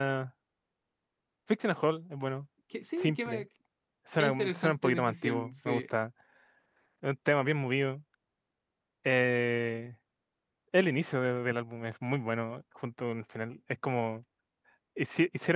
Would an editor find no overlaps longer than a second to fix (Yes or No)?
No